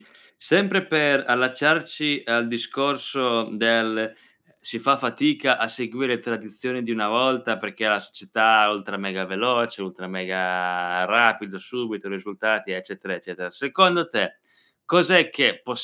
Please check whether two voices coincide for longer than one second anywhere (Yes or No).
No